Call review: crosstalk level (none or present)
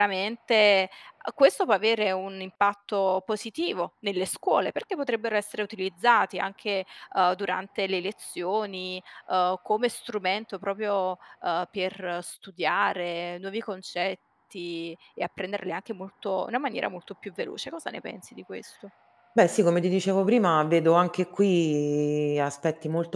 none